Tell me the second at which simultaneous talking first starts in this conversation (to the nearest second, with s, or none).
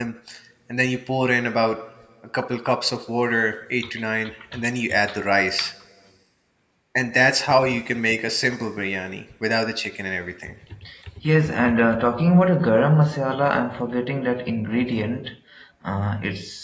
none